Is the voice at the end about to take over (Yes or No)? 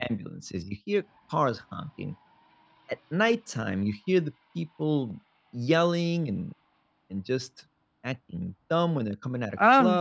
Yes